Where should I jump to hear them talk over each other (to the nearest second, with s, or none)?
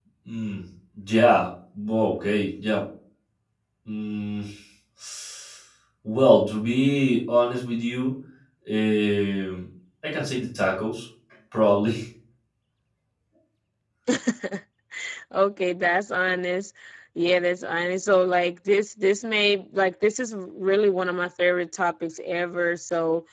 none